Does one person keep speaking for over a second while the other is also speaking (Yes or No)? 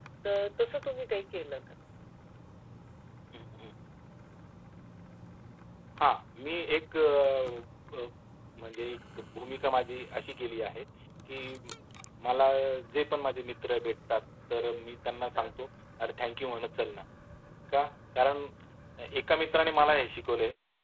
No